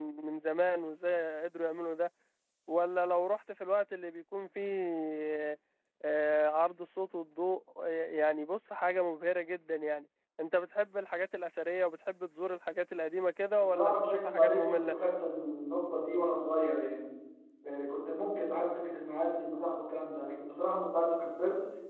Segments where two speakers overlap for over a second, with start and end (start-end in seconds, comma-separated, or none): 13.6-15.0